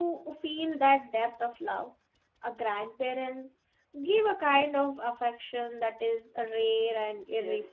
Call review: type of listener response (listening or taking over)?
taking over